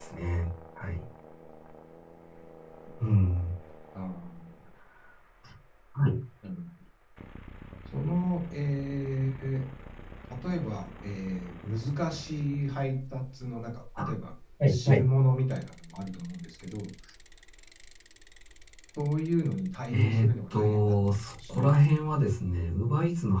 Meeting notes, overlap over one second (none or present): present